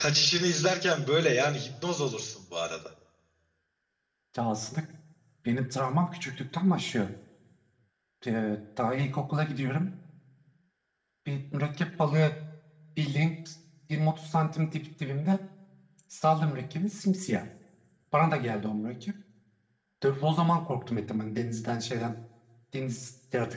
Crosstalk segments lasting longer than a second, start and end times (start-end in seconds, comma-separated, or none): none